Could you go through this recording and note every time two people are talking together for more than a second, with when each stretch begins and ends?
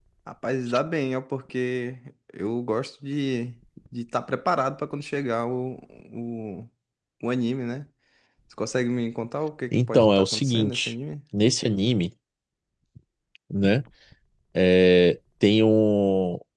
9.7-10.9

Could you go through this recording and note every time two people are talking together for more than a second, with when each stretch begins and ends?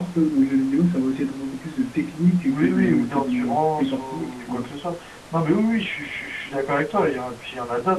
2.4-4.7

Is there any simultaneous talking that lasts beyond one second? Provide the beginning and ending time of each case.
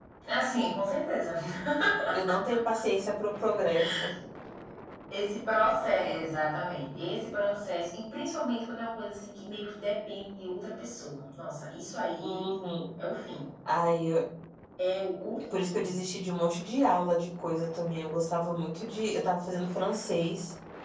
none

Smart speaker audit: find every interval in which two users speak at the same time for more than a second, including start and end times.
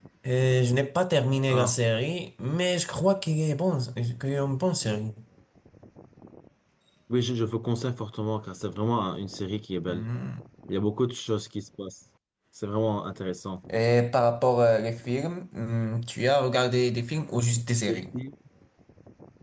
none

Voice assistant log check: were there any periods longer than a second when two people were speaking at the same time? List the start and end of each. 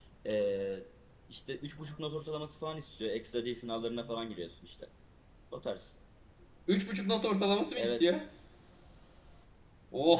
none

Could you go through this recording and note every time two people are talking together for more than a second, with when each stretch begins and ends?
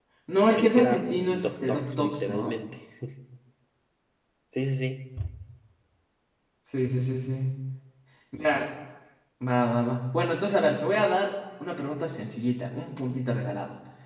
0.6-2.5

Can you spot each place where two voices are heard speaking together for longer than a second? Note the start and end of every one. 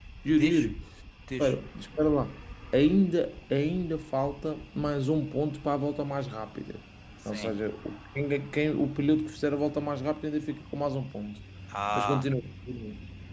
none

